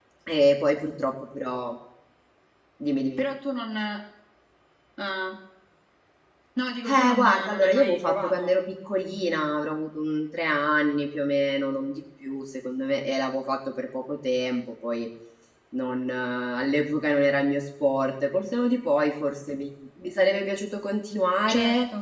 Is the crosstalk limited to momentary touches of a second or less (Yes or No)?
No